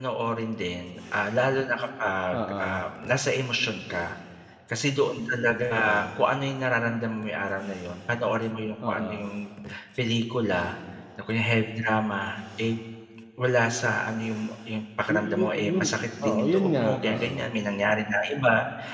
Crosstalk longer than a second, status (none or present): present